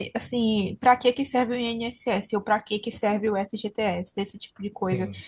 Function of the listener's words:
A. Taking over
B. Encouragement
B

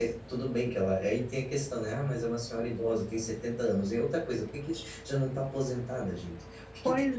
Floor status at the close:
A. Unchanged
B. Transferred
B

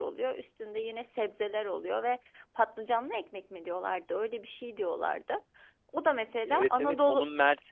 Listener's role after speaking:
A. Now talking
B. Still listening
A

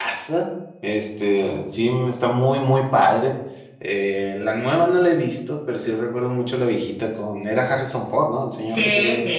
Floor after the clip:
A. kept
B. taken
B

